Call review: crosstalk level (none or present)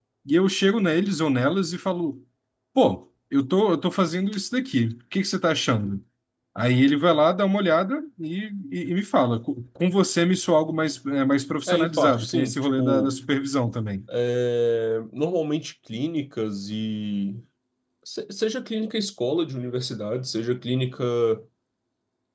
present